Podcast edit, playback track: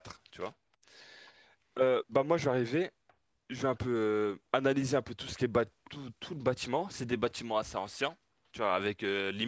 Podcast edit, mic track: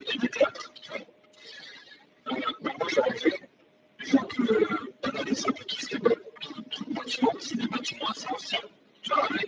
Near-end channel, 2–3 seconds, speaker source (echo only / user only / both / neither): echo only